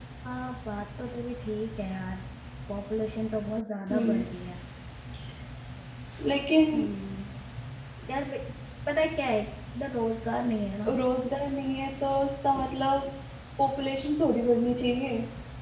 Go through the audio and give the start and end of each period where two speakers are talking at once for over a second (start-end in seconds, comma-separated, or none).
none